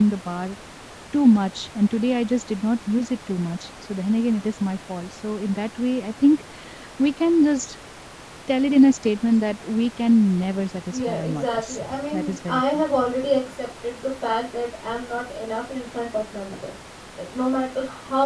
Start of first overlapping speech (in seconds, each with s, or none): 10.9 s